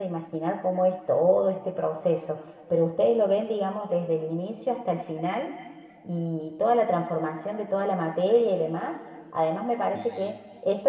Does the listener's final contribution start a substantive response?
No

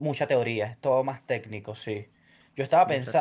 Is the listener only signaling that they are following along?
Yes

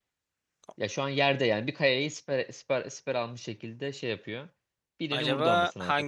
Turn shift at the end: Yes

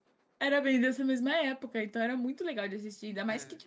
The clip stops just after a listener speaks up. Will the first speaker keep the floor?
Yes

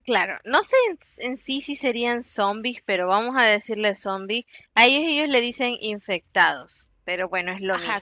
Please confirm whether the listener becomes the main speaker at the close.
Yes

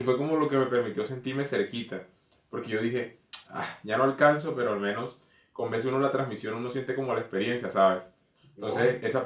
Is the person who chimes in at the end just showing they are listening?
Yes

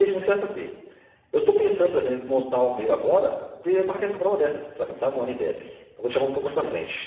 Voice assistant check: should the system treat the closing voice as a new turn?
No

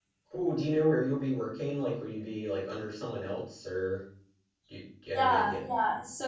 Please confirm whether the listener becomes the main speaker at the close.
Yes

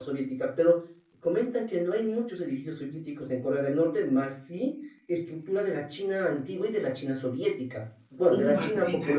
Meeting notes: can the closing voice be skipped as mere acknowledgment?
No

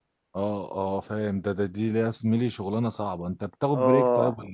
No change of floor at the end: No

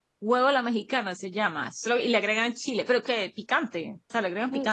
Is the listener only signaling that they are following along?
No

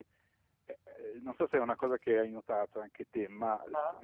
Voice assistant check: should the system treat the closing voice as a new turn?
No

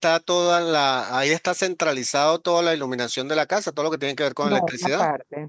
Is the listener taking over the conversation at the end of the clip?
Yes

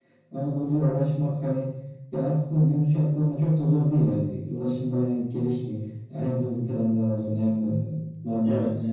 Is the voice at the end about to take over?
No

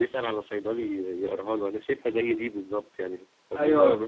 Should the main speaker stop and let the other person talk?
No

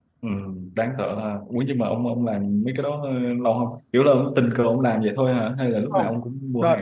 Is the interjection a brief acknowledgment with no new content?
No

